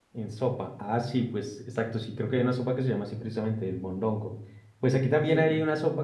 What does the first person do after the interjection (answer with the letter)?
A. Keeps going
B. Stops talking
A